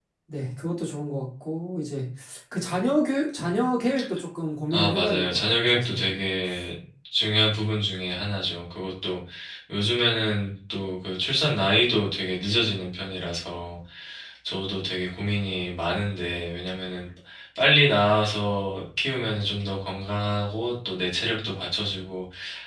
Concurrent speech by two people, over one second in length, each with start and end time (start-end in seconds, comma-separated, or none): 4.7-6.2